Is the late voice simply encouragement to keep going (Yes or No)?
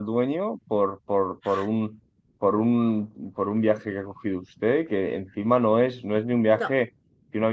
Yes